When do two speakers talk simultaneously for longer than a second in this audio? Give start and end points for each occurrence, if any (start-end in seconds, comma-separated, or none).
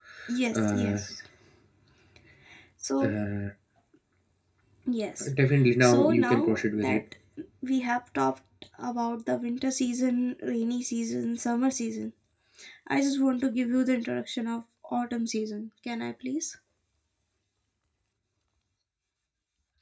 5.8-7.0